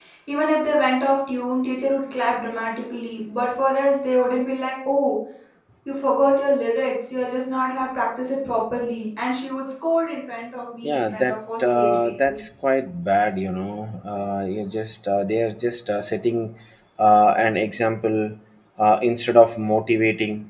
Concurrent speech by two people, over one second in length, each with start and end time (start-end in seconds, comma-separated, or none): 10.8-12.4